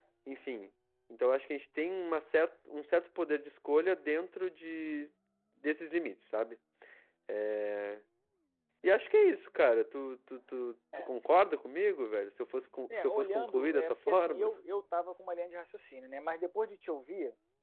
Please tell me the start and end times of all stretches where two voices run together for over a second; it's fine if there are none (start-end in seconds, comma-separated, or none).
12.9-14.5